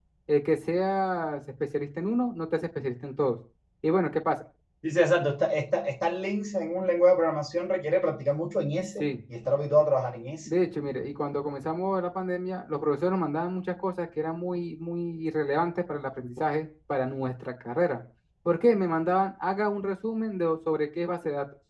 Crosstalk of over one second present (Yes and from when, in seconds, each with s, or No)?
No